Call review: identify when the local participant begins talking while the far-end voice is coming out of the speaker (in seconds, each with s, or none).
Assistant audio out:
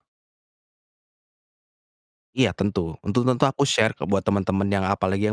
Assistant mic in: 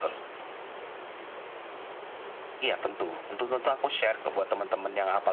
none